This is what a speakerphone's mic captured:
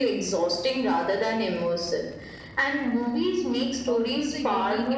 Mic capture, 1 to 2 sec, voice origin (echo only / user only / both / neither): echo only